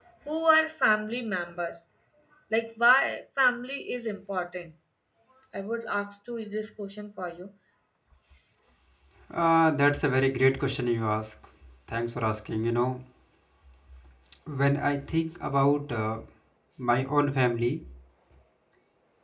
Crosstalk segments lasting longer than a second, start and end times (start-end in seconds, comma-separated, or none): none